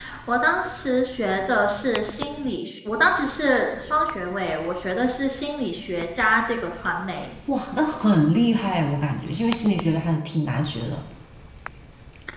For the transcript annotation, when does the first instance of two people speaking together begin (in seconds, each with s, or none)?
none